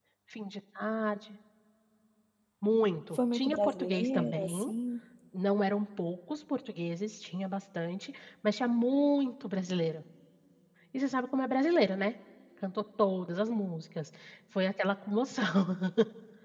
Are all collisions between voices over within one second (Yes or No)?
No